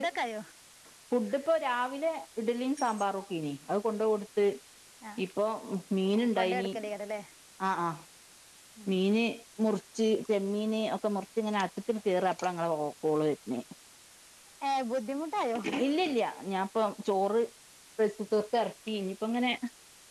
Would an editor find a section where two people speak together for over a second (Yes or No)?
No